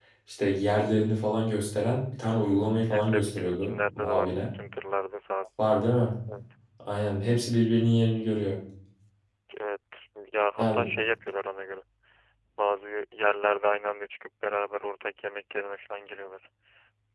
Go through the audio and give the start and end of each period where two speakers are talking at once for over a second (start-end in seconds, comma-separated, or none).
2.9-4.5